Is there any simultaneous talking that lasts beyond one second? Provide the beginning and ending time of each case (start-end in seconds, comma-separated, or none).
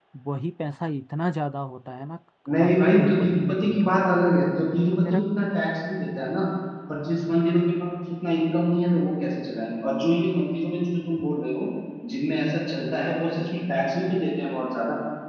2.6-4.0